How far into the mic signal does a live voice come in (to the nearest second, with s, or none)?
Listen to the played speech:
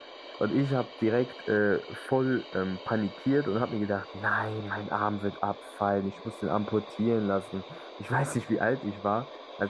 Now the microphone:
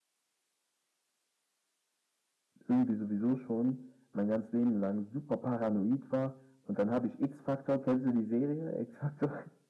3 s